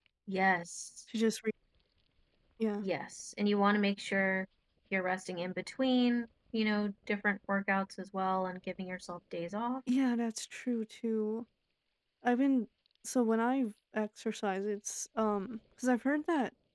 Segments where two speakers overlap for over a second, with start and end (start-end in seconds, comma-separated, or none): none